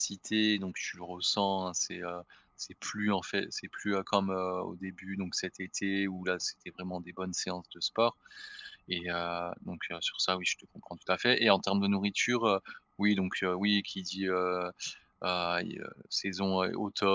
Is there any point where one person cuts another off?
No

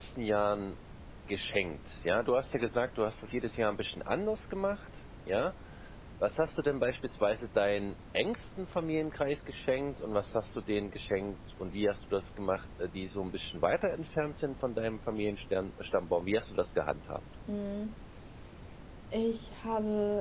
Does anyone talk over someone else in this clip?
No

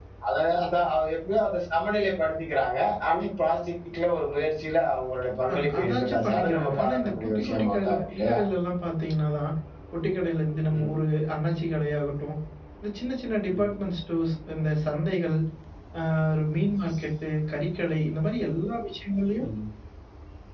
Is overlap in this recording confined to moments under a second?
No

